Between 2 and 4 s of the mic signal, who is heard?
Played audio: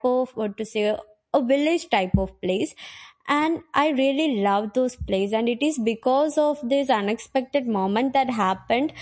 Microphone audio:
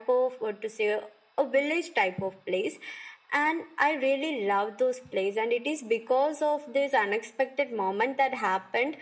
echo only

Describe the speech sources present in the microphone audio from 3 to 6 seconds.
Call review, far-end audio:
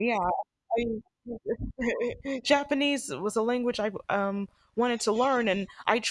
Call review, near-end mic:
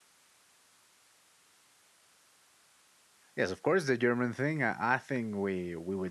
user only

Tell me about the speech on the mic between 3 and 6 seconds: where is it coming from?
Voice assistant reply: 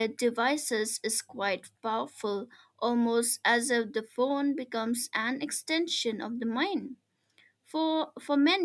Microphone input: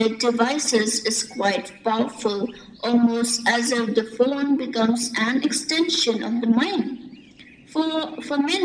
echo only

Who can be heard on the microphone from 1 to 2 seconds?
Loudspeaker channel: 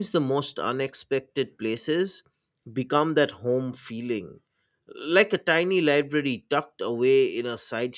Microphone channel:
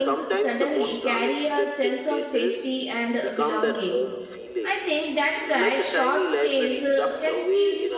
both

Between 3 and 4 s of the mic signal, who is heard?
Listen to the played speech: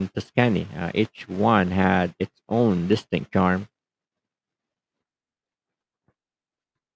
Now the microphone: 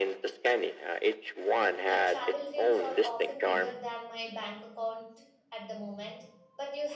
both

